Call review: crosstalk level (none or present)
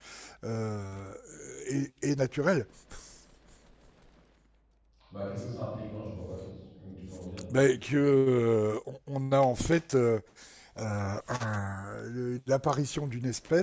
none